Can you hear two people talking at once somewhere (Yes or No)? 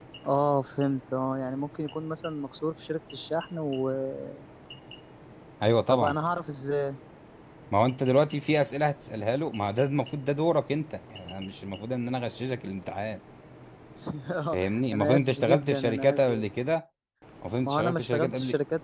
Yes